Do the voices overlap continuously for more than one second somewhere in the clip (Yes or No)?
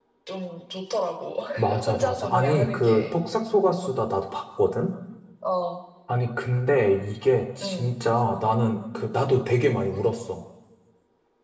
Yes